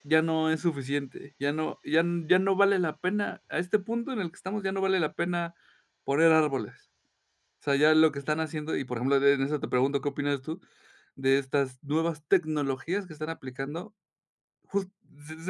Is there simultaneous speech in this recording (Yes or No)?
No